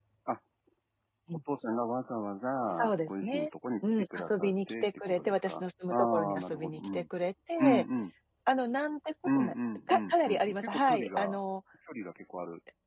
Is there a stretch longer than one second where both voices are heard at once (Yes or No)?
Yes